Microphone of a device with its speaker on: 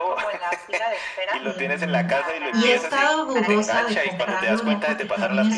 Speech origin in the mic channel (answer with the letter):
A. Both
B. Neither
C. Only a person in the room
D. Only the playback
A